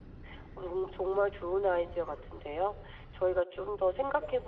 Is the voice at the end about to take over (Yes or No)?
No